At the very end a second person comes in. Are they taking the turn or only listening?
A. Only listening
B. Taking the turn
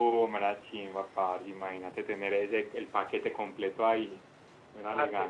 B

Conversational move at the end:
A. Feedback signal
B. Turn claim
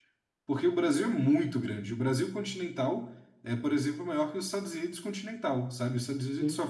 A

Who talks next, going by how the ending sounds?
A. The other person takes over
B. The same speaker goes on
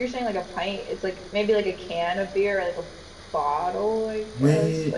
A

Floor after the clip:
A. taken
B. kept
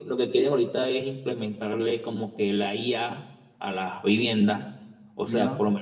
B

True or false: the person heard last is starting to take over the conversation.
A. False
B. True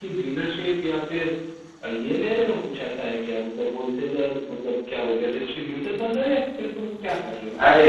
B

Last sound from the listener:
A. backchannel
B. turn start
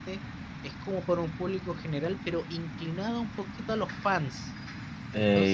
B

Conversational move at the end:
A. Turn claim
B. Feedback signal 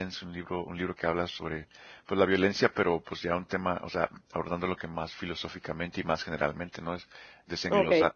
B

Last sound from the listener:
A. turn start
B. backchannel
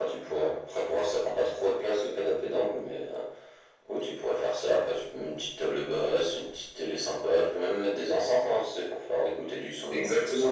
A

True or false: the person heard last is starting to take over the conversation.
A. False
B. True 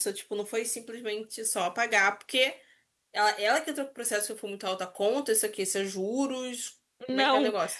B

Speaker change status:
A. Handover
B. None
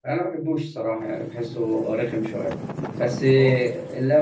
B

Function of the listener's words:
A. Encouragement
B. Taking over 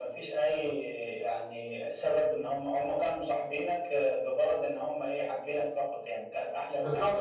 B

